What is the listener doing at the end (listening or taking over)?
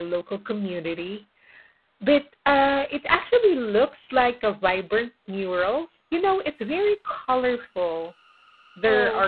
listening